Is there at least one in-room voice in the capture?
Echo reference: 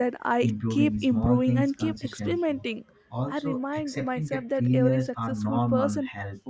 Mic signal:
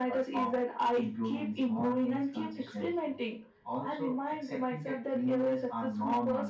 No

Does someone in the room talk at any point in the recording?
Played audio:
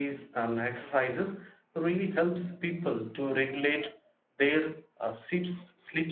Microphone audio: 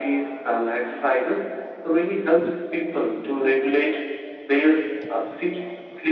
No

